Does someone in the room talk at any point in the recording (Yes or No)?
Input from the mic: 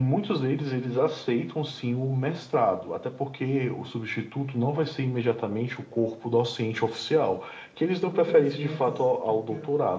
Yes